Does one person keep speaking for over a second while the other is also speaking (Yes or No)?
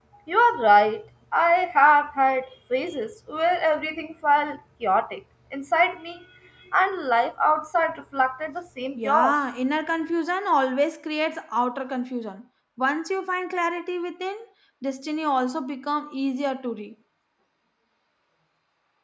No